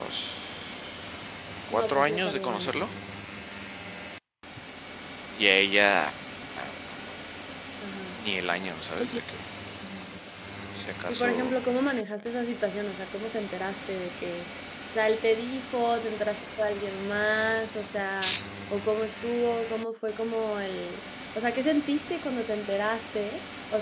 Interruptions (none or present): present